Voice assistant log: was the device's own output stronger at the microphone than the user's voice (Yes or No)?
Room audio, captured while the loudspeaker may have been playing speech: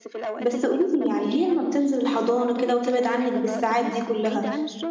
No